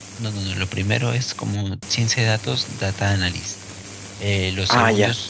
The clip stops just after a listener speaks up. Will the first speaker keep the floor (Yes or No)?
Yes